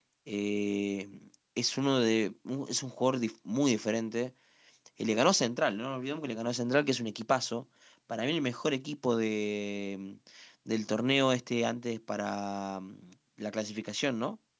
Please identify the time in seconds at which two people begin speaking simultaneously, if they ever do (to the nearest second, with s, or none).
none